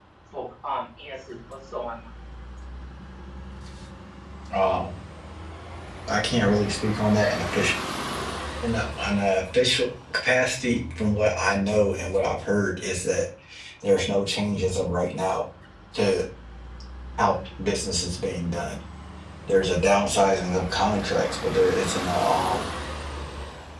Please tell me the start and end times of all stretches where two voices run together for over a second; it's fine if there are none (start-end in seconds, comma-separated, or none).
none